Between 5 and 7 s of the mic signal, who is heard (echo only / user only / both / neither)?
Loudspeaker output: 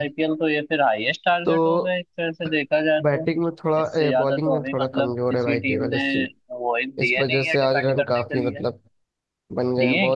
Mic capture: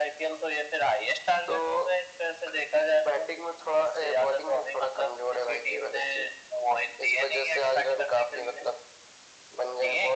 echo only